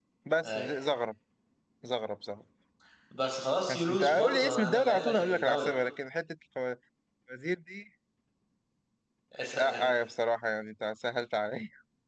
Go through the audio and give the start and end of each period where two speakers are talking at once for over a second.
3.7-5.7

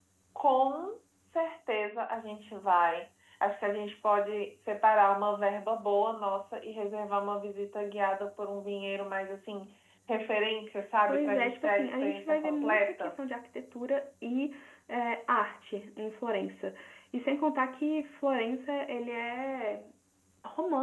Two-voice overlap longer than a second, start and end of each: 11.1-13.2

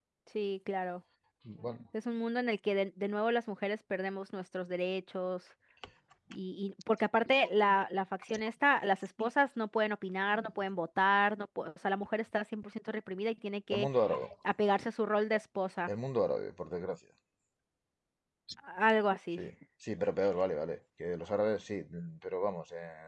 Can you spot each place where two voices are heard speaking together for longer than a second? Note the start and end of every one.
none

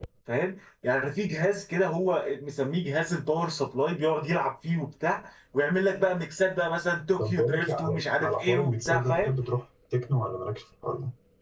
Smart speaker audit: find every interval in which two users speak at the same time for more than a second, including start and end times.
7.2-9.3

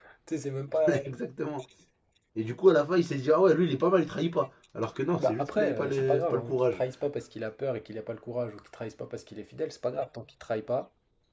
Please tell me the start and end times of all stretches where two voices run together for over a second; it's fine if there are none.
5.2-6.8

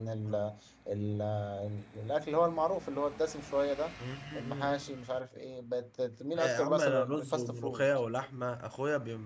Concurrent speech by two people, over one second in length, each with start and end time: 6.4-7.8

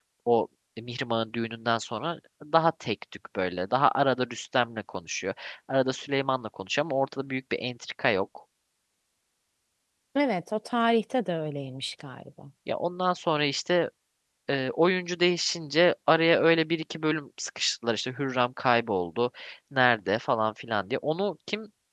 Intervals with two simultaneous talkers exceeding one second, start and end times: none

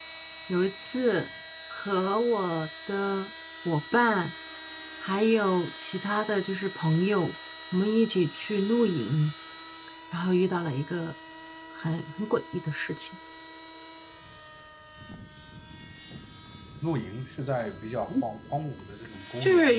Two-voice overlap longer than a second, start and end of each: none

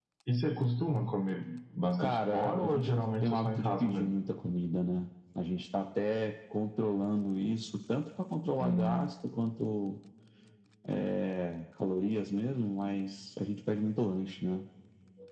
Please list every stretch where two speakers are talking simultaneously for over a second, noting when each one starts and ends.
2.0-4.1

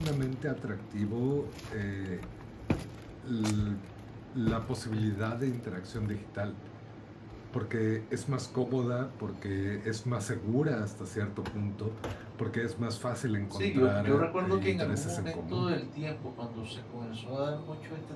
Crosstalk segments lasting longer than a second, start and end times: 13.5-15.8

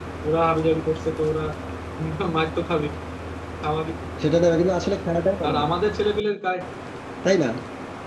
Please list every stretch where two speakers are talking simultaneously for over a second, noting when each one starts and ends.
none

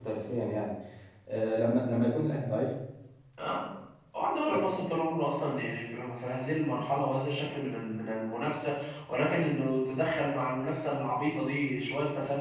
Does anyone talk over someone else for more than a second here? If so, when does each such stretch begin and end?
none

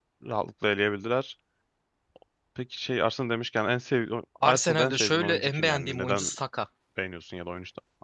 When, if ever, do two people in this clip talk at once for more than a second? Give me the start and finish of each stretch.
4.5-6.3

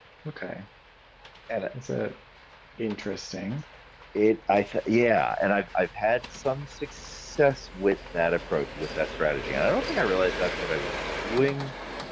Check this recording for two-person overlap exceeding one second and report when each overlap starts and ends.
none

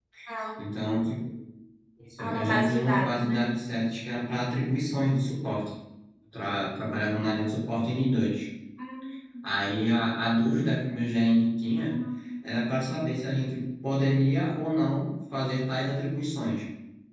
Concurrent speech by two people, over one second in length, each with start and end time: 2.2-3.5

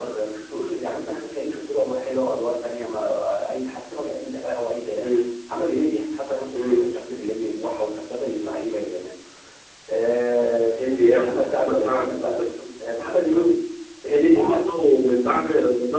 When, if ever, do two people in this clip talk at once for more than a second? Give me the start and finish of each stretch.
11.2-12.4

